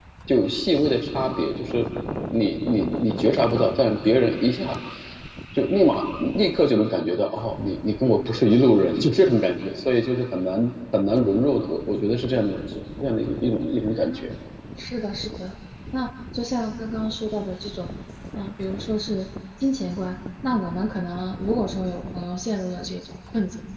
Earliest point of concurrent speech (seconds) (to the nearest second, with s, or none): none